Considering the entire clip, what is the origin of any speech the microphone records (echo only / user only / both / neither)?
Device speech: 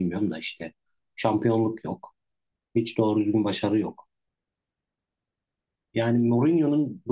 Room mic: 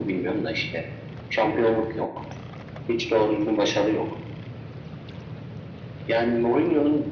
echo only